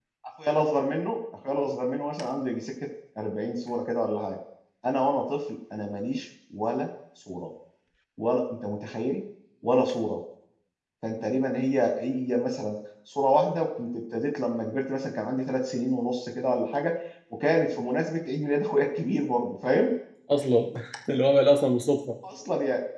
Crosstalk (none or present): none